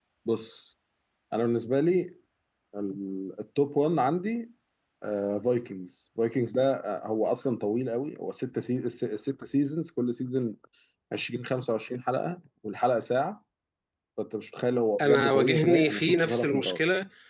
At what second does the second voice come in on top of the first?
15.0 s

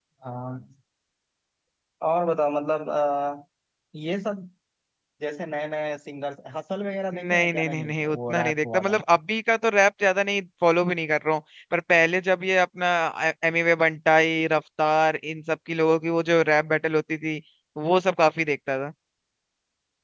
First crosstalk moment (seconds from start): 7.1 s

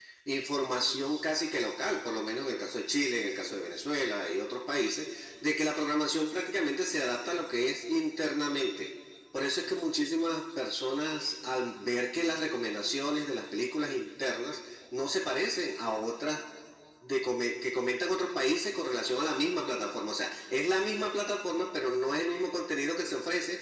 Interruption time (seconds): none

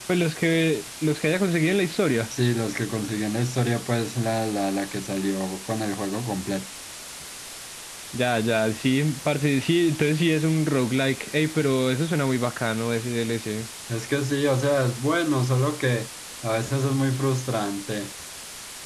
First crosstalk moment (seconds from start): none

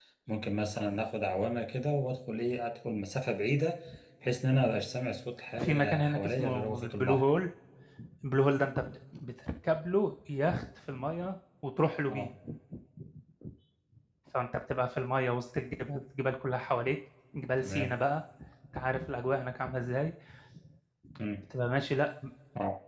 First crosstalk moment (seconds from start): 5.6 s

